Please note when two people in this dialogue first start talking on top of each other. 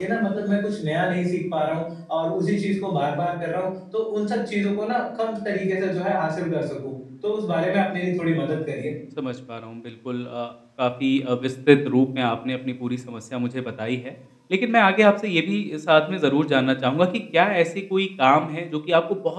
none

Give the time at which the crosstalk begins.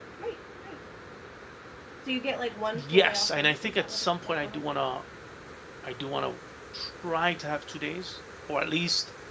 2.7 s

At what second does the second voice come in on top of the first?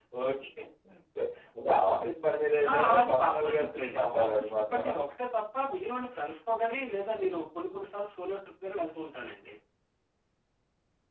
2.6 s

